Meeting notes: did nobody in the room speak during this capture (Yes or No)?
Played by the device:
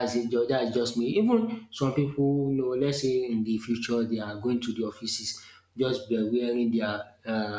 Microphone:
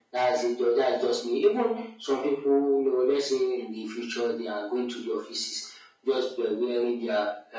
Yes